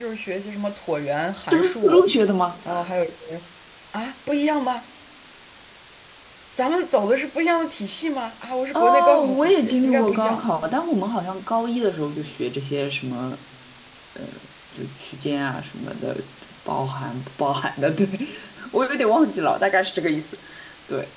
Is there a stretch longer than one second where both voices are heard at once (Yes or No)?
Yes